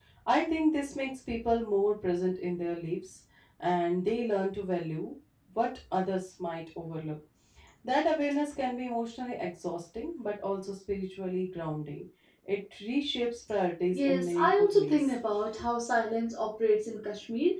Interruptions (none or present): present